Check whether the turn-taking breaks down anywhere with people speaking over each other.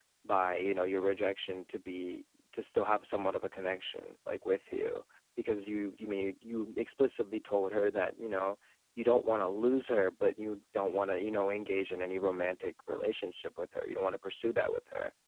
No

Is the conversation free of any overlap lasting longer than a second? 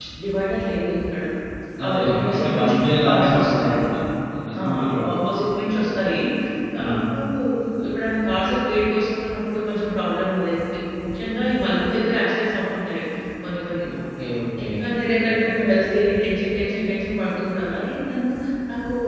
No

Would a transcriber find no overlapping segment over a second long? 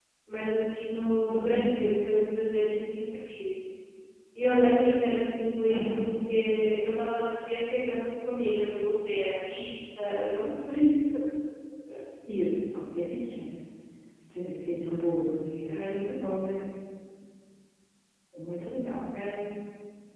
Yes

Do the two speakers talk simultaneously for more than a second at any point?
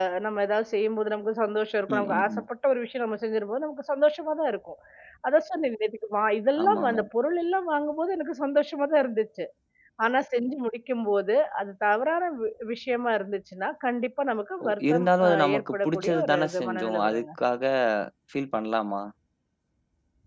Yes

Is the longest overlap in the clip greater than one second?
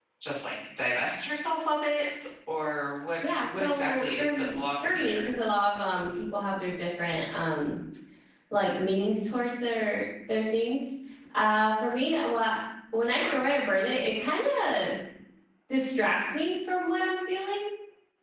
Yes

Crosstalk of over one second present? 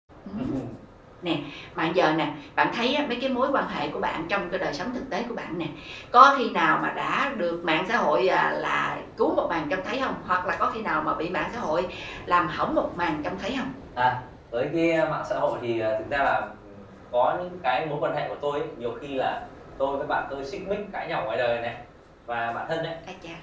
No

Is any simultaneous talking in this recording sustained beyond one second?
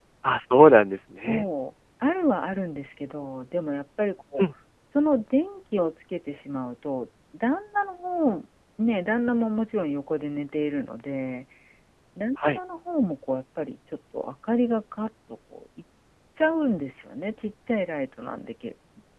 No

